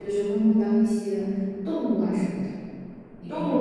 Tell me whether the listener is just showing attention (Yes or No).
No